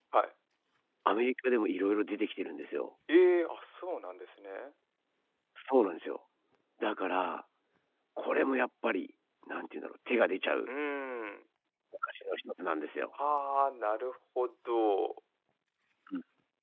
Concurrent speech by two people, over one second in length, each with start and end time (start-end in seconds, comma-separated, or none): none